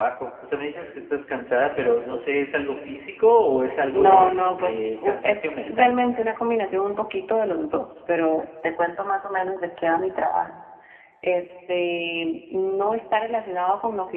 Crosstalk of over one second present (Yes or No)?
Yes